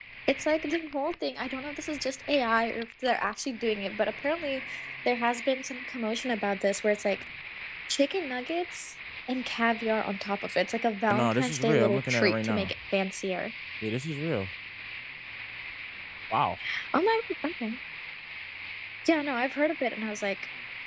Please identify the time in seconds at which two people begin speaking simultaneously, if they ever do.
11 s

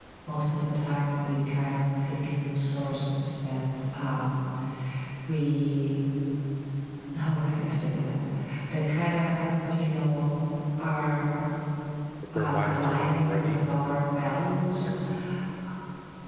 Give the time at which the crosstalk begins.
12 s

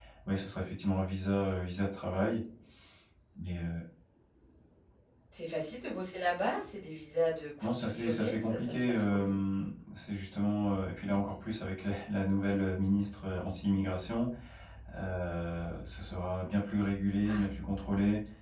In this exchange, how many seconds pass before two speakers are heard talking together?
8 s

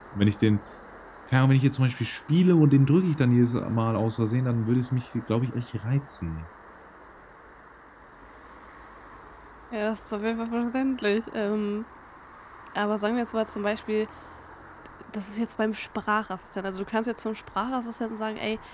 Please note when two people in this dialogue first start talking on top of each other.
none

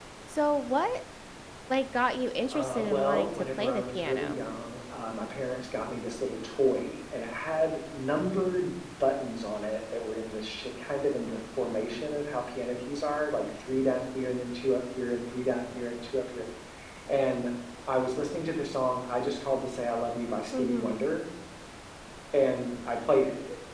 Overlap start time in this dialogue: 3 s

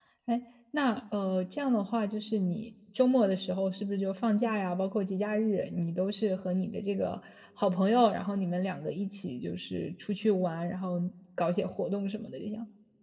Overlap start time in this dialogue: none

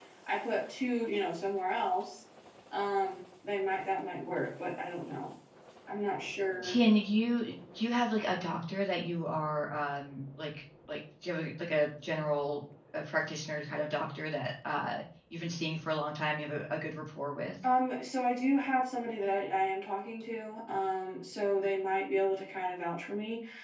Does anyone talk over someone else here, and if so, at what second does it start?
none

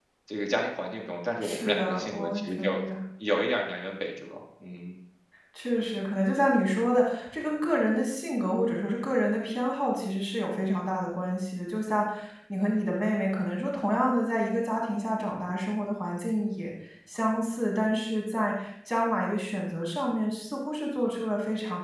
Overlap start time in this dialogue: 1 s

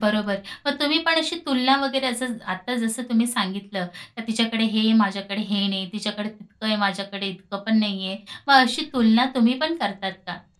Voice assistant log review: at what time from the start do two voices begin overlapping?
none

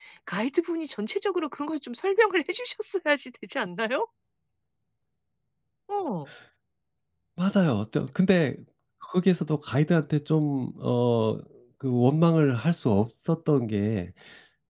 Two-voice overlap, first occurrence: none

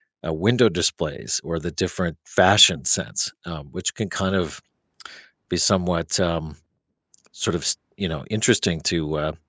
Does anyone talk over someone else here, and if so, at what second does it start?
none

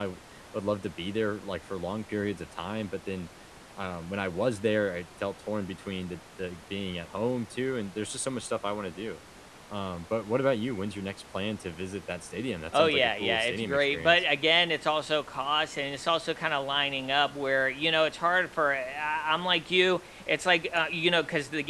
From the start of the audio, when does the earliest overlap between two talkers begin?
13 s

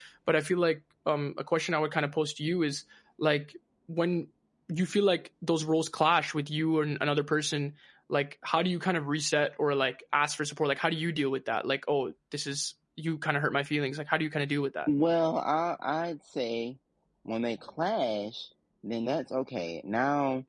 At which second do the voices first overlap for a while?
none

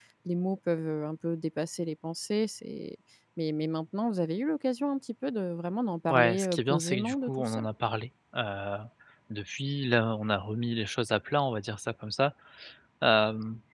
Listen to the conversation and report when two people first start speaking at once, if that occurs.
6 s

